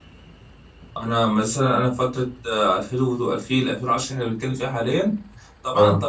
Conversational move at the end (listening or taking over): listening